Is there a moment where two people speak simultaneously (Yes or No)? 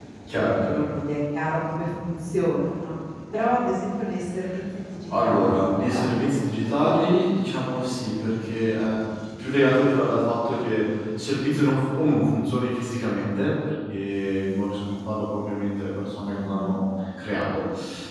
Yes